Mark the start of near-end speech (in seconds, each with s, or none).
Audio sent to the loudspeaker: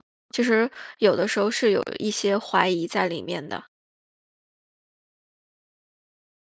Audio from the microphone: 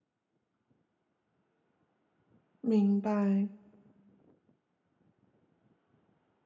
2.6 s